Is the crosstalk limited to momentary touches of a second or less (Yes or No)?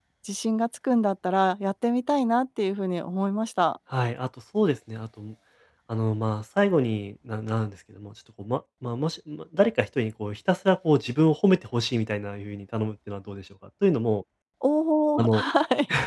Yes